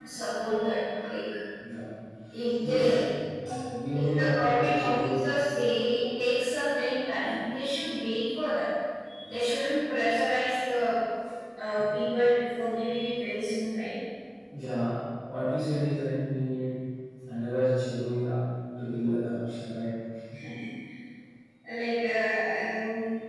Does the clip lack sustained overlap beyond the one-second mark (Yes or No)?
No